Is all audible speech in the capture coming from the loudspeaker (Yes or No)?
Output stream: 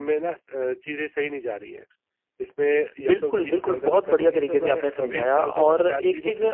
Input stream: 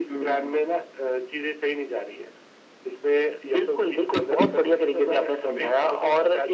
No